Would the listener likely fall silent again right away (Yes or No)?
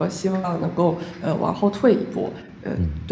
No